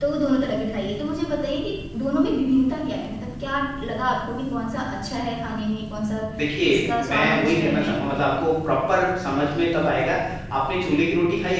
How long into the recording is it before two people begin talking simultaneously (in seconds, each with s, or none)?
6.6 s